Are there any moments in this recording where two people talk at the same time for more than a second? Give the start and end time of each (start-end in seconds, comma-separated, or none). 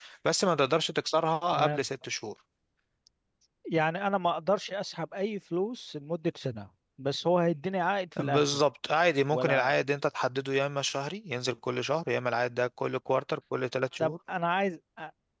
none